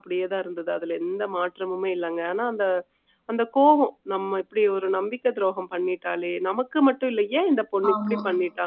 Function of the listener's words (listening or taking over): listening